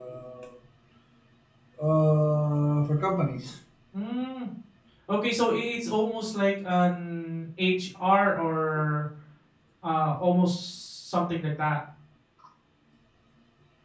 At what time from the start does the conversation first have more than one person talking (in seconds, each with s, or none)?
none